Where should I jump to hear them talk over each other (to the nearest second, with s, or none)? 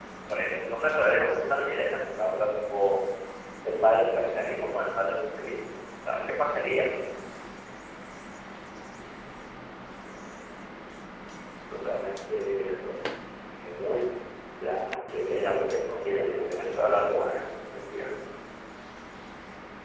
15 s